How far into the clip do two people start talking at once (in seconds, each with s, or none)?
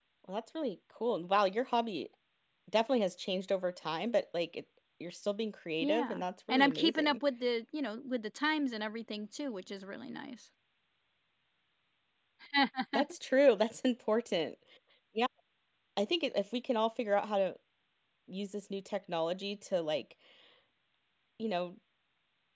5.8 s